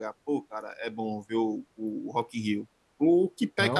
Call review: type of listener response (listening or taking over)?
listening